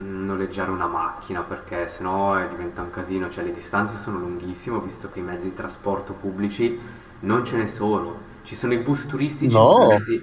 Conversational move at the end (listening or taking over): listening